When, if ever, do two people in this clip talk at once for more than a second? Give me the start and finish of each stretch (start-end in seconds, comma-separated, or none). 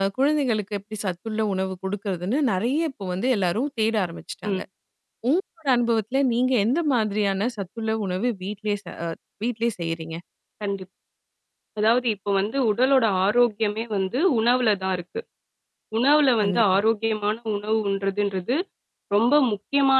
none